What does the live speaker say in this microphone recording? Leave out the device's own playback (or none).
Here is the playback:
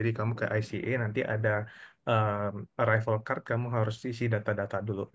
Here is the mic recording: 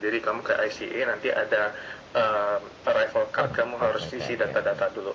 Wah, baik-baik aja nih.